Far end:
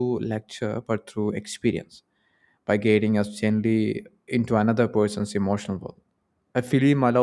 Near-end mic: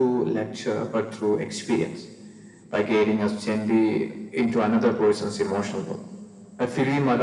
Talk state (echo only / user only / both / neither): echo only